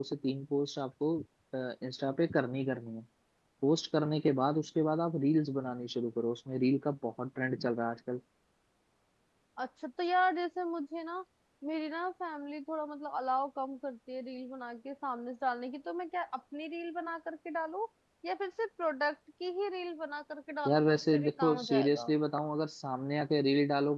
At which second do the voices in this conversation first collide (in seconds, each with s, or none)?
20.6 s